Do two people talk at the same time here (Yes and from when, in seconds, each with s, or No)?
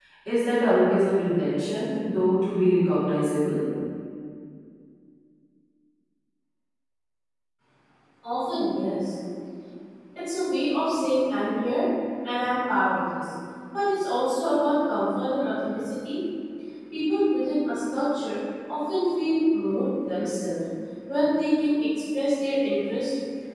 No